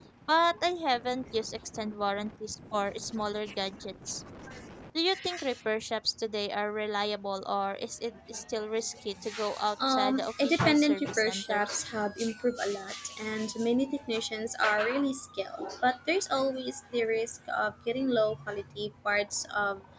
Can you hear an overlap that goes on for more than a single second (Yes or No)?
Yes